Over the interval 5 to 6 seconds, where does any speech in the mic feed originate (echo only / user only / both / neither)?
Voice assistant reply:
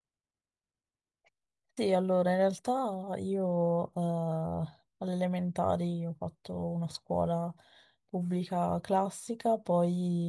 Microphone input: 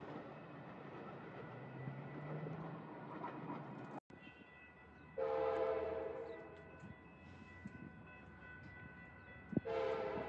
neither